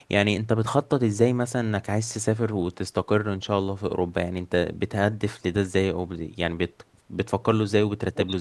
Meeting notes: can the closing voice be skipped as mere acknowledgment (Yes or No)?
No